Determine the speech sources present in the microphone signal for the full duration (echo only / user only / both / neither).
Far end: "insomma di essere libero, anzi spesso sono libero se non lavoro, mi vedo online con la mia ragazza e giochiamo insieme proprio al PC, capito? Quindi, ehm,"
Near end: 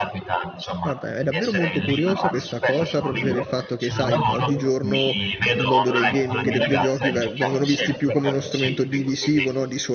both